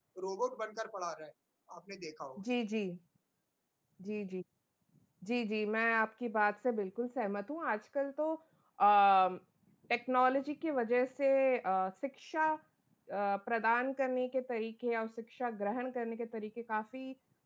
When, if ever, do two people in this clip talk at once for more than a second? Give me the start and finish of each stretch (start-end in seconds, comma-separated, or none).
none